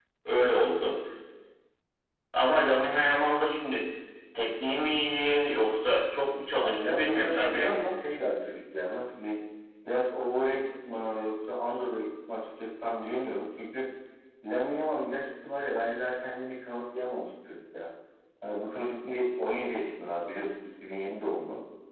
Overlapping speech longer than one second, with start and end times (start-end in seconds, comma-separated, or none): 6.5-8.0